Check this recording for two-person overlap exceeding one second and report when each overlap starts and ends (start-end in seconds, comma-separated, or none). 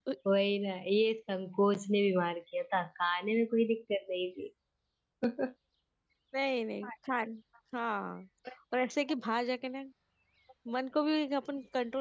none